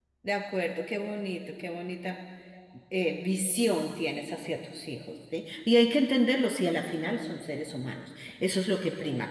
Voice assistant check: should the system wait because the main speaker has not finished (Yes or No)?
Yes